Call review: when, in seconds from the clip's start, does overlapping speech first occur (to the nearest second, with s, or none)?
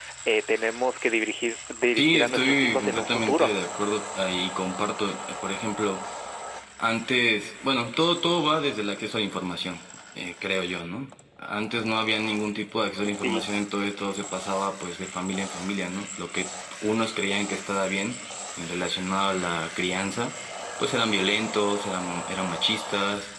2 s